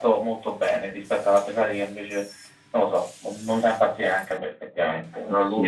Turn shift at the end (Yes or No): Yes